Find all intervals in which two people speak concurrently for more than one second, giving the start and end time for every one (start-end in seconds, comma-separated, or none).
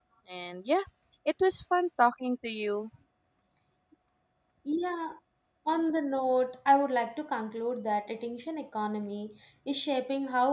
none